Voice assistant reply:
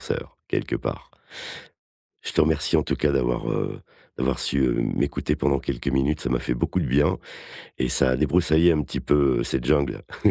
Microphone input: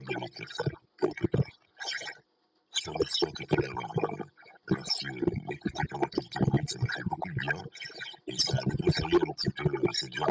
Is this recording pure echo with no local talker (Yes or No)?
Yes